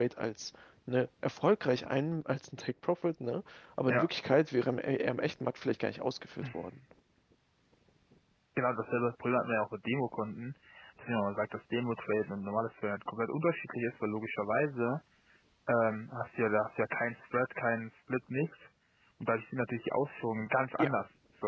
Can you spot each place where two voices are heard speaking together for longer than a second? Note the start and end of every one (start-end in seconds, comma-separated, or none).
none